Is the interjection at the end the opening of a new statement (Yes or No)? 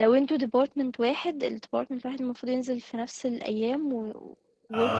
Yes